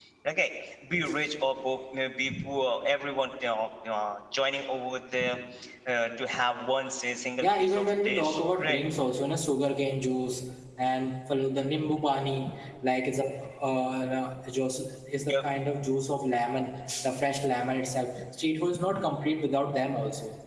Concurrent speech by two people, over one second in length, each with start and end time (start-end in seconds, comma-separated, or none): 7.4-8.8